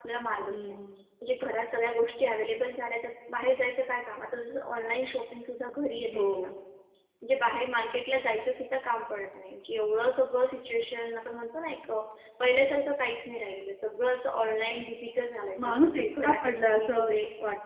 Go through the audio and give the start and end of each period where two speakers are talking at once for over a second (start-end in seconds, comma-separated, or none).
15.6-17.1